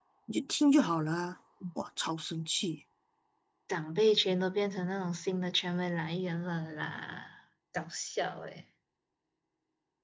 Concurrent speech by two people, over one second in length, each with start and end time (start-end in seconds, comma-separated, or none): none